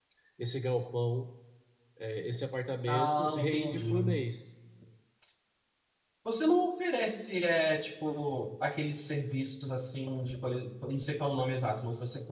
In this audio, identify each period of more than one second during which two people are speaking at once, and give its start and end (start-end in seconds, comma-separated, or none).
2.9-4.2